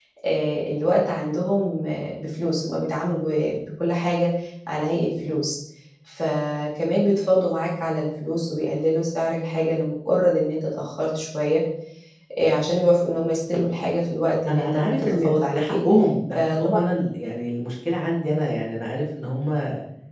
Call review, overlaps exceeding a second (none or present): present